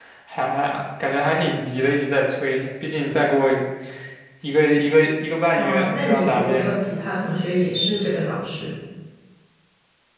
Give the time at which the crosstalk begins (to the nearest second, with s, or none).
6 s